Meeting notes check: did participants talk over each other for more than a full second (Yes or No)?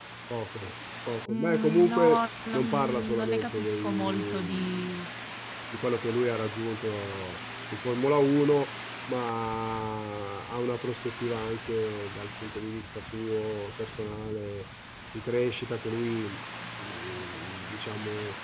Yes